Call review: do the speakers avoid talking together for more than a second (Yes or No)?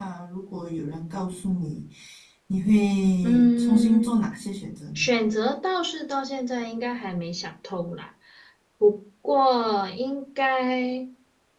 No